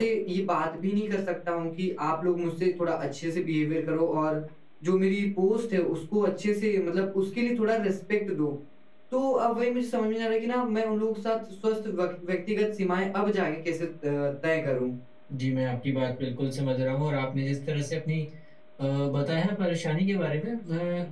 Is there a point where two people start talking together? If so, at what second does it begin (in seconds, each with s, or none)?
none